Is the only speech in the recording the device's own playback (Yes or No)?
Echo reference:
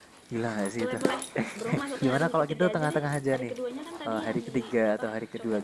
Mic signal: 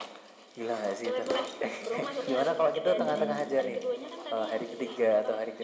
No